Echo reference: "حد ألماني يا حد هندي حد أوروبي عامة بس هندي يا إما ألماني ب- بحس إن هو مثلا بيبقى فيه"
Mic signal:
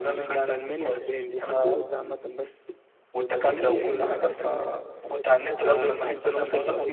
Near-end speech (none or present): present